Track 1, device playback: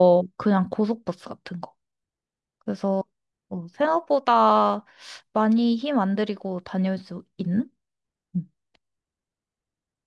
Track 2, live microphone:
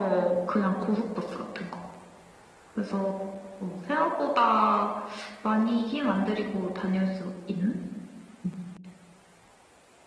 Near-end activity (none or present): none